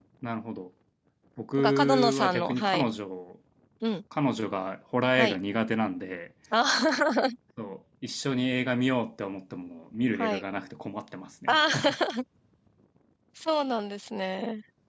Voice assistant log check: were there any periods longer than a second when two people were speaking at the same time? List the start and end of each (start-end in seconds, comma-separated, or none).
1.6-2.8